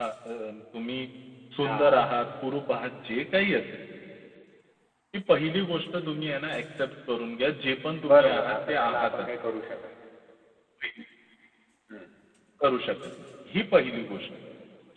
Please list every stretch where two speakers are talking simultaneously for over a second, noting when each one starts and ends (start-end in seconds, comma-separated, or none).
8.1-9.3